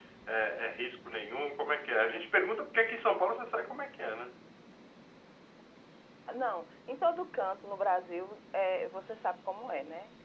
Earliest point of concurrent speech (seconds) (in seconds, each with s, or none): none